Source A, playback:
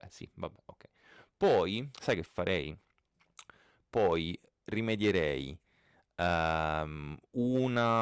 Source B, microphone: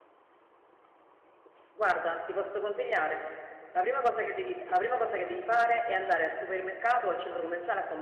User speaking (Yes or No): Yes